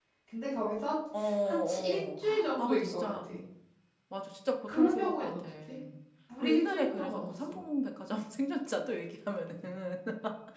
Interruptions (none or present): present